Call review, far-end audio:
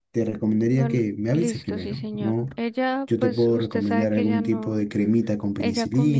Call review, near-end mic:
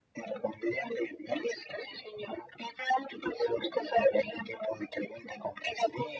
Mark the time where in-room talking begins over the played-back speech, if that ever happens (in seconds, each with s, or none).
none